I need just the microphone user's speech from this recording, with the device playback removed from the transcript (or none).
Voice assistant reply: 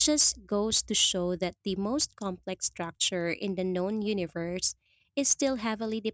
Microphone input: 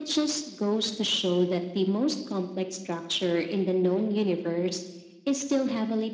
none